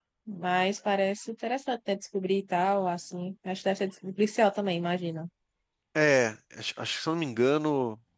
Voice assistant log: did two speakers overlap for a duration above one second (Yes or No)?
No